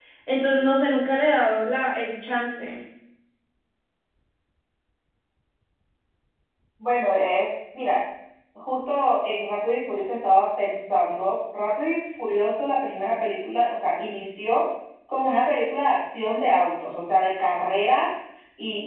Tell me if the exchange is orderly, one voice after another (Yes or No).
Yes